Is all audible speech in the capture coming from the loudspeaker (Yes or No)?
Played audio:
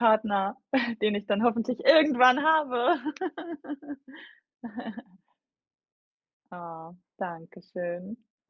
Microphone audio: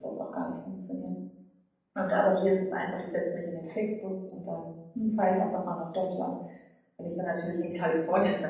No